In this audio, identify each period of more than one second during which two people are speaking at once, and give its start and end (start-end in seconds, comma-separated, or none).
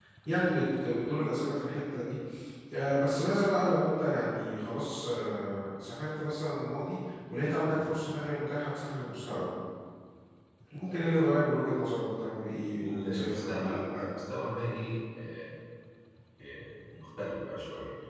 12.8-14.0